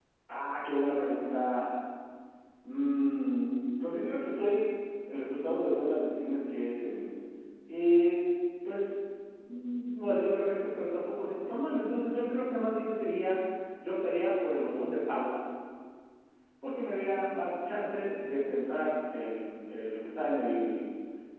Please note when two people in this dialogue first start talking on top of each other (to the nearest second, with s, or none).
none